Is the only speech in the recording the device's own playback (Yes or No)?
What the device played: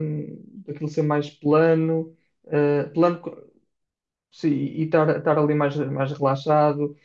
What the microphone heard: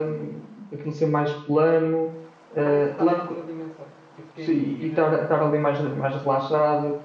No